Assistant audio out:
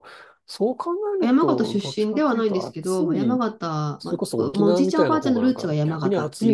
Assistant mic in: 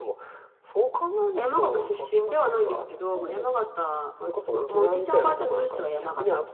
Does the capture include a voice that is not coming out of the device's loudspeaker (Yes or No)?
No